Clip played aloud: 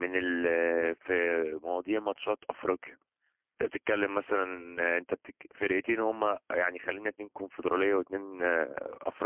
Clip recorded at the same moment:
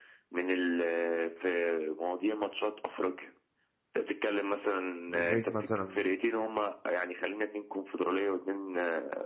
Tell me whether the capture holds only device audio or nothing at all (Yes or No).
No